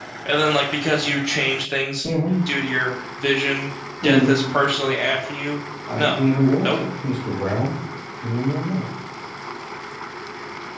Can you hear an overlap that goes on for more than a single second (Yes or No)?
No